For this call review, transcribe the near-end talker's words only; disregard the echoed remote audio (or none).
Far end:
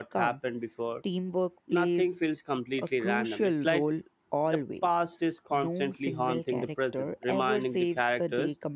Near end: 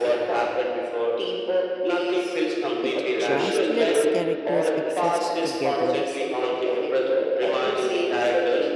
it just lets characters exist together